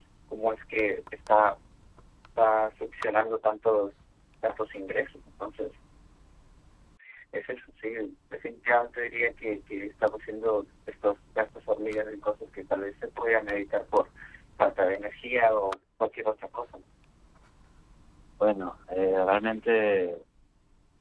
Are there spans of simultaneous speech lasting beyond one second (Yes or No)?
No